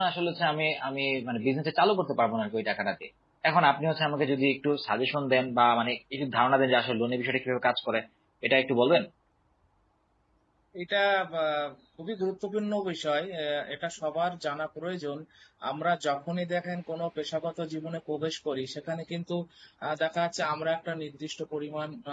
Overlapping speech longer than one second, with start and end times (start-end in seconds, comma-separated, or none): none